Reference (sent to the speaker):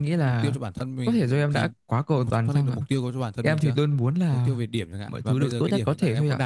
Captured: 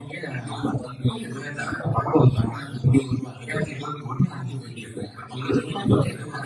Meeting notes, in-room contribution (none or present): none